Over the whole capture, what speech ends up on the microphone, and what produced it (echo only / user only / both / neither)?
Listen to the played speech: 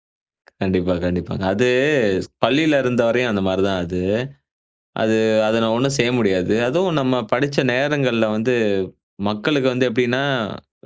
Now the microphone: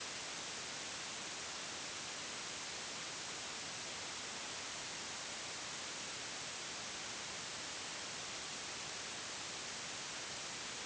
neither